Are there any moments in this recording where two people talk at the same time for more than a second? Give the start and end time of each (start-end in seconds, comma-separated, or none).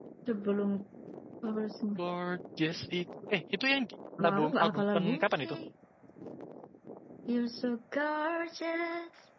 4.2-5.5